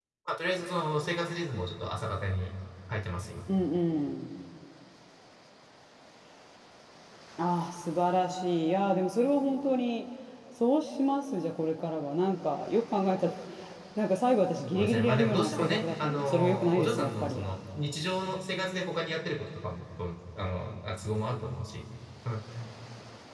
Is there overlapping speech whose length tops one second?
Yes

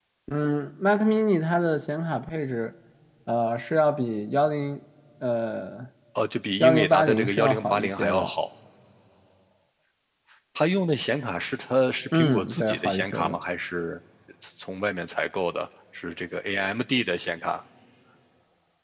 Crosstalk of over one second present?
Yes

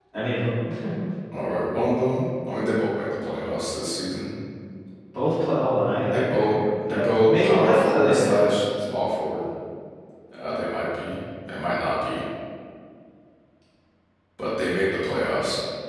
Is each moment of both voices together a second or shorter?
No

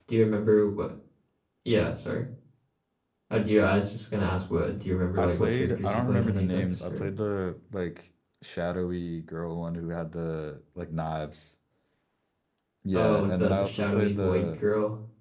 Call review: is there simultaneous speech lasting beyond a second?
Yes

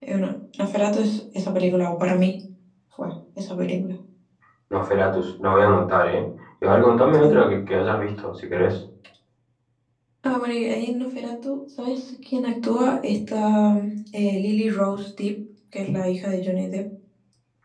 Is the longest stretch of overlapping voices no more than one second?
Yes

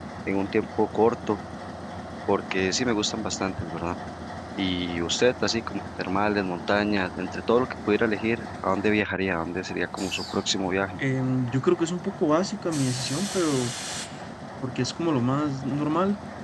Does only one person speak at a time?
Yes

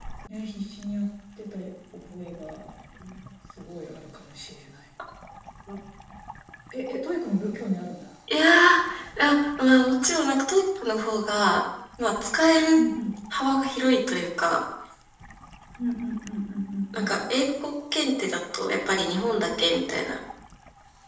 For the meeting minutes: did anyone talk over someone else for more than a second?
No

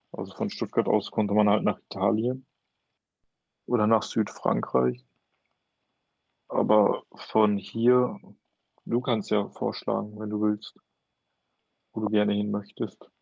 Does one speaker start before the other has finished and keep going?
No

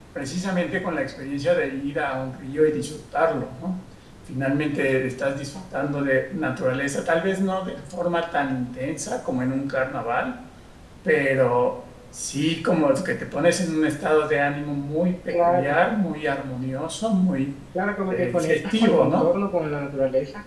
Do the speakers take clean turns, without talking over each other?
No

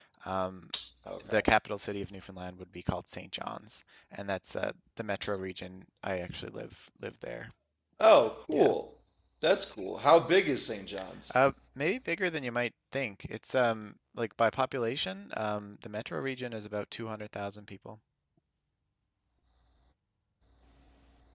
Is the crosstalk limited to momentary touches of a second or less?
Yes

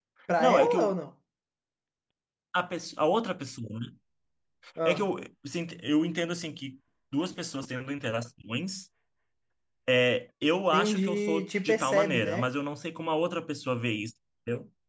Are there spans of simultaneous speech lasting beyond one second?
Yes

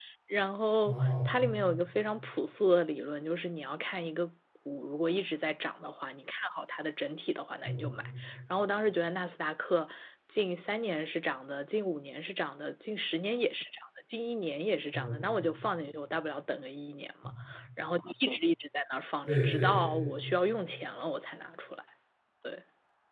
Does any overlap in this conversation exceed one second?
No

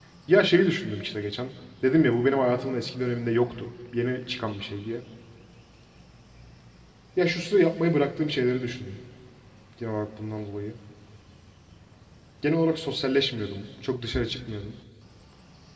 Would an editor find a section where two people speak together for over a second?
No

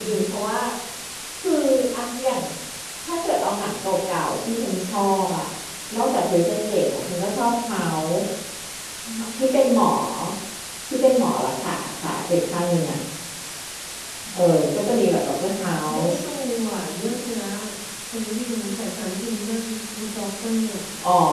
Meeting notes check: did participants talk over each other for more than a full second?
No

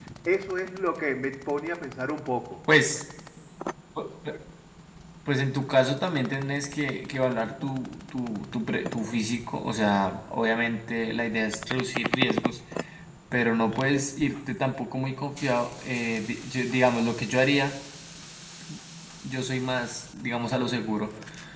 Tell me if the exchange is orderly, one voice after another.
Yes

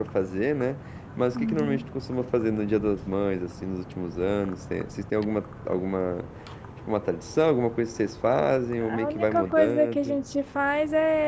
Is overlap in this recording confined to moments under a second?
No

